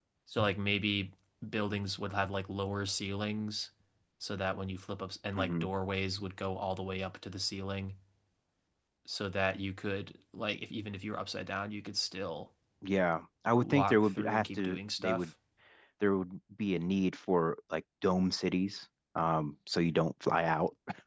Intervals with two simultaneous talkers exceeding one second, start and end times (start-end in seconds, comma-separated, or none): 13.6-15.3